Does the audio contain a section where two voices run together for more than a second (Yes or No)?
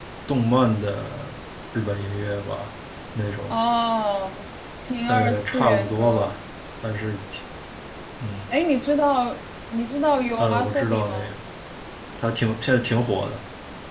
Yes